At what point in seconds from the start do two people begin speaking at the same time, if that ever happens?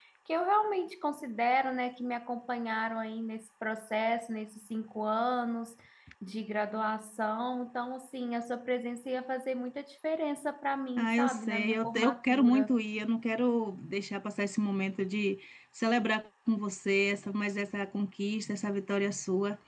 11.0 s

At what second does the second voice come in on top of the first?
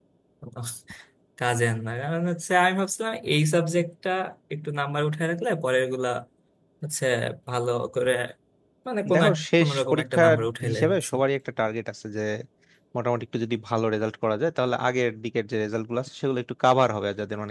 9.1 s

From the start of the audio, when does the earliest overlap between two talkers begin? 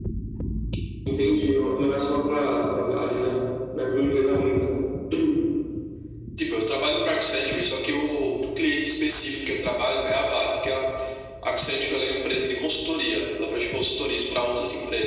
none

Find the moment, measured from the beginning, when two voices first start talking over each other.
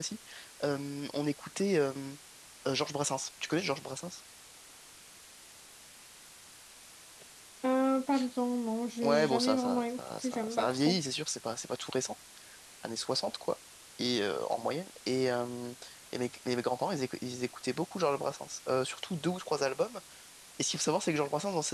9.0 s

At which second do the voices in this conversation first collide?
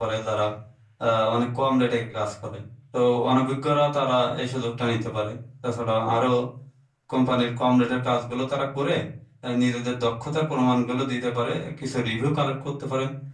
none

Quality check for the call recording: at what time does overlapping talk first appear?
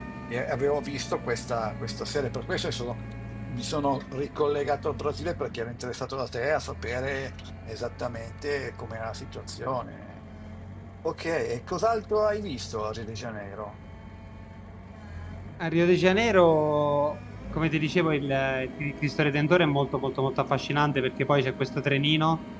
none

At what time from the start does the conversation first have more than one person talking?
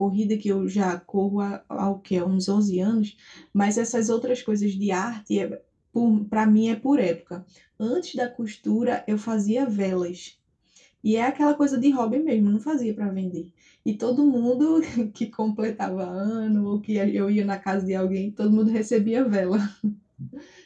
none

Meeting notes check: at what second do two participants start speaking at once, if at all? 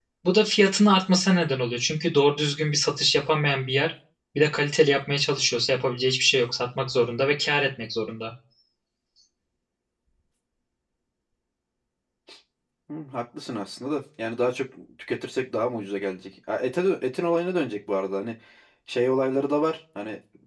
none

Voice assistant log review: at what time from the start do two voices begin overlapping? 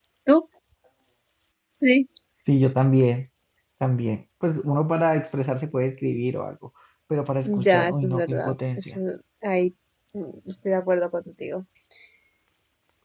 7.4 s

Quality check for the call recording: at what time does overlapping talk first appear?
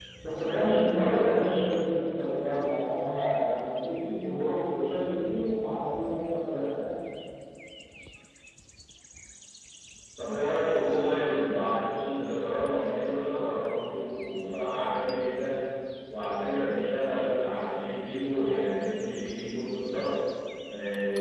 none

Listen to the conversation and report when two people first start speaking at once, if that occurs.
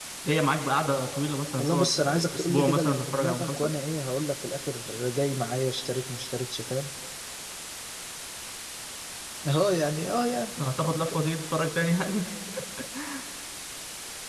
1.6 s

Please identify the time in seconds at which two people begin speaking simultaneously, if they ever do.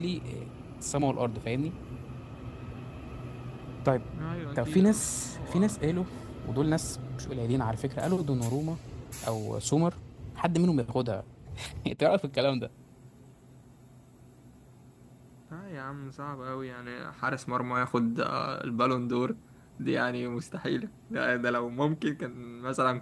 4.6 s

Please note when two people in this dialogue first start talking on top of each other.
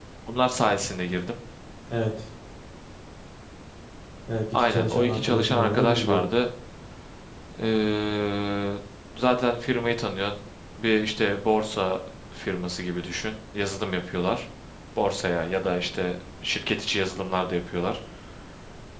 4.5 s

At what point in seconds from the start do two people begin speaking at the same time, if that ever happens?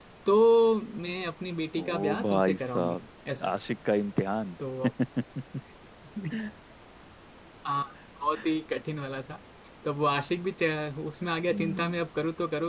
1.8 s

